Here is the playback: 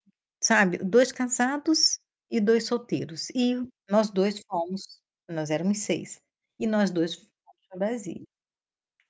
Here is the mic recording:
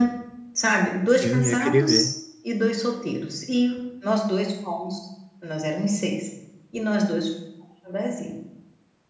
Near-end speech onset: 1.1 s

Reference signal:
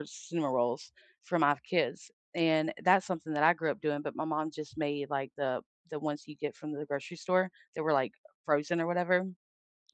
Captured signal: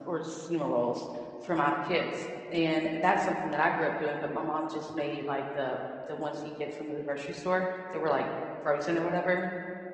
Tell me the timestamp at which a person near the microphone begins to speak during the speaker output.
none

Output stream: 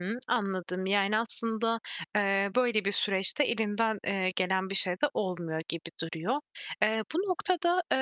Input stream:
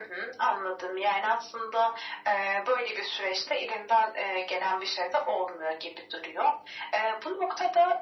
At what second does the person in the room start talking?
none

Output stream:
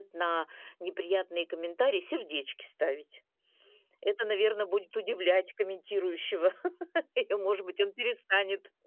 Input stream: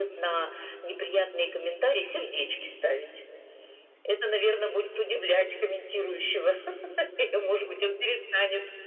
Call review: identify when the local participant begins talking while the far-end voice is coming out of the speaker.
none

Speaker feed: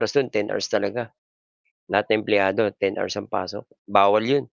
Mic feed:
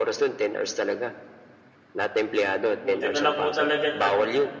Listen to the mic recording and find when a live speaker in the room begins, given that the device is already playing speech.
2.6 s

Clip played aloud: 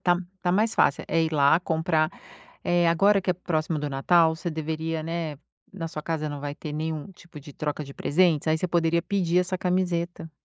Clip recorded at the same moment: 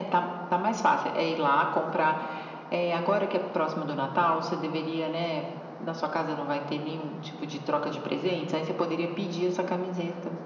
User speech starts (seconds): none

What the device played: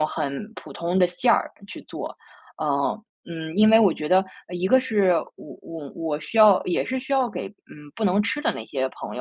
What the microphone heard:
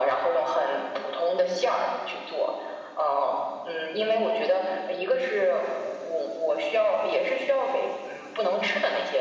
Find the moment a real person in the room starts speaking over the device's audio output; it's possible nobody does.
none

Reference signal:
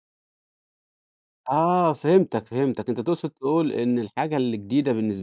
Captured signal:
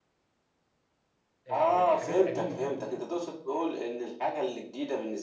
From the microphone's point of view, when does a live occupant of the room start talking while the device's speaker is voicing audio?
1.5 s

